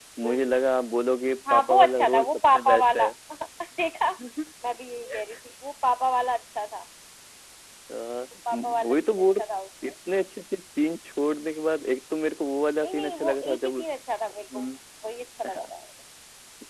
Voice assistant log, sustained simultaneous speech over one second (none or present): present